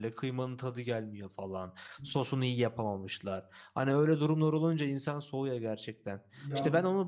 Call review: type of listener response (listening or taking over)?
listening